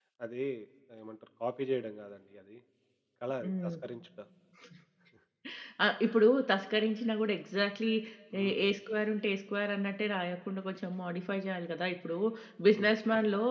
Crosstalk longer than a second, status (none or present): none